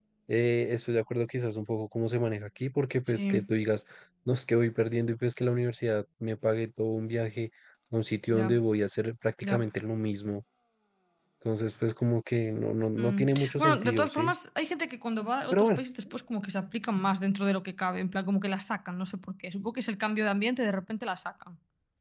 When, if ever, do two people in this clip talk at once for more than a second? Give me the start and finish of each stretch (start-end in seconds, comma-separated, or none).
13.0-14.3